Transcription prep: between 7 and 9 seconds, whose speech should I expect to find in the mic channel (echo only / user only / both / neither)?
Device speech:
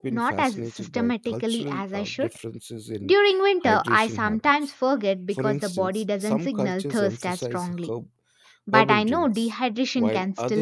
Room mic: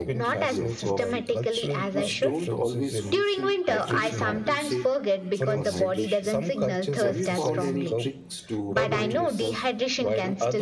both